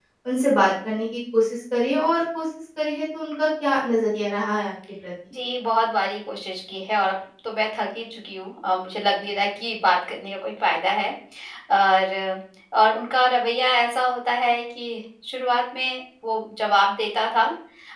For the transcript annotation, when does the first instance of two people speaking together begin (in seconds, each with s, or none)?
none